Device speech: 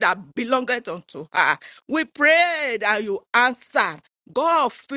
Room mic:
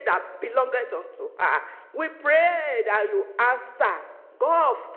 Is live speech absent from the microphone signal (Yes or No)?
Yes